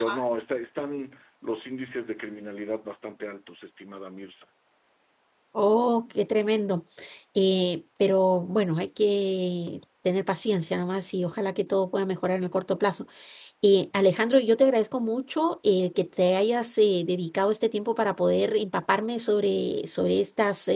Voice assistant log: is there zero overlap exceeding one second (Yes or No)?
Yes